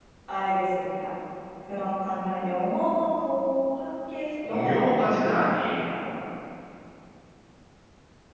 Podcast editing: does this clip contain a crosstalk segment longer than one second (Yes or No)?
Yes